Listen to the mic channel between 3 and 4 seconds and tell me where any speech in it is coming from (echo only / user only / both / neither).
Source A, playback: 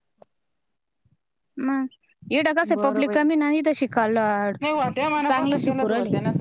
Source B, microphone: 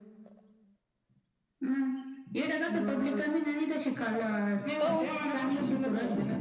echo only